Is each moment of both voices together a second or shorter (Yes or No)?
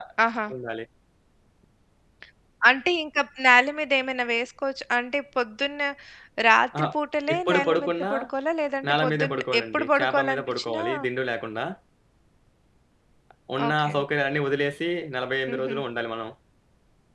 No